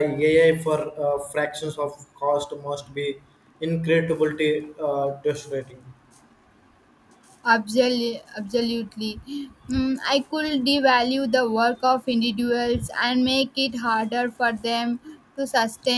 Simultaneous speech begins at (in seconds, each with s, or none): none